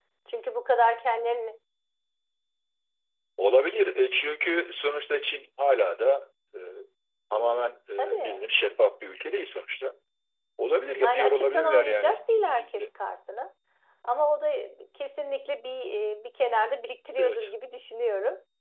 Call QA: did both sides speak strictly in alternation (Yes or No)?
No